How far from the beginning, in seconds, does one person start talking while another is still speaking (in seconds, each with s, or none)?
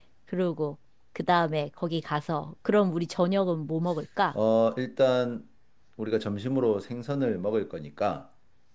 none